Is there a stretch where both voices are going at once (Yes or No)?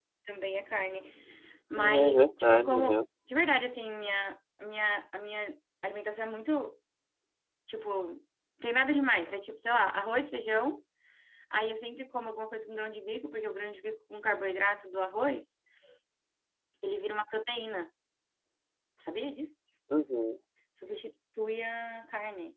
Yes